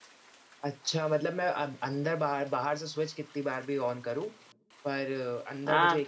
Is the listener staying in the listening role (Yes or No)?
Yes